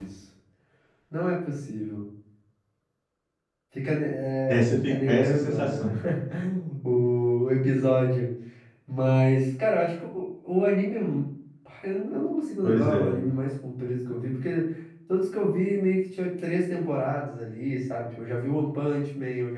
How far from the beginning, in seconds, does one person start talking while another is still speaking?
4.5 s

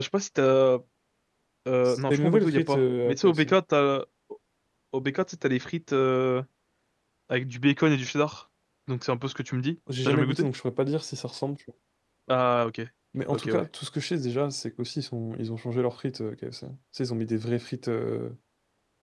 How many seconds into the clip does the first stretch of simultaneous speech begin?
1.9 s

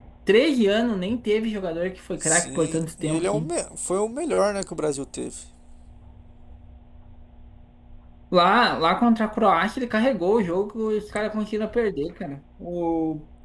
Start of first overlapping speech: 2.2 s

